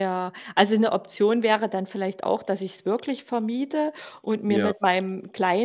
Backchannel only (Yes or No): Yes